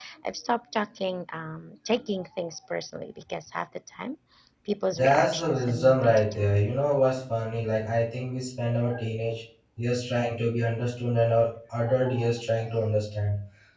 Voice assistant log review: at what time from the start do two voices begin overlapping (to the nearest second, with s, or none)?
5 s